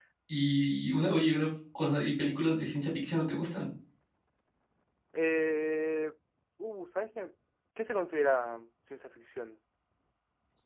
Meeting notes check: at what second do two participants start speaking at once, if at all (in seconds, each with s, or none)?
none